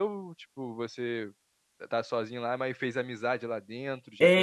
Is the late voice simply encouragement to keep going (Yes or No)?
No